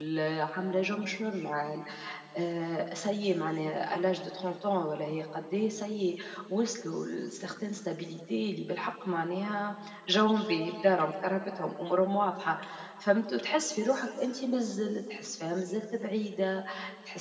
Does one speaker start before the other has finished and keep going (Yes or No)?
No